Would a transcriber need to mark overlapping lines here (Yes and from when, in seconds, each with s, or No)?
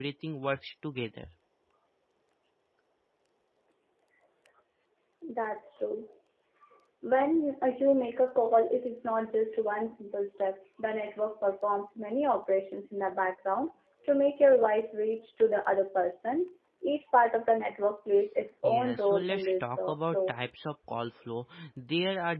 Yes, from 18.6 s